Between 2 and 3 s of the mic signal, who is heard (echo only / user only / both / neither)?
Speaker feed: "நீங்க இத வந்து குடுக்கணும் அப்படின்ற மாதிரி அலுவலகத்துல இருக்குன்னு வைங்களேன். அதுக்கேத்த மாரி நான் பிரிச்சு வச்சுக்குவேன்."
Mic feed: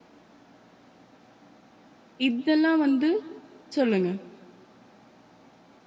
user only